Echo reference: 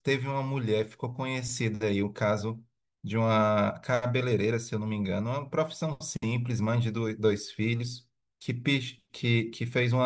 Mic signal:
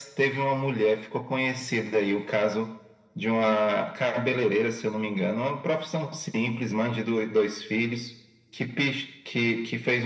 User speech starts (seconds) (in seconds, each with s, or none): none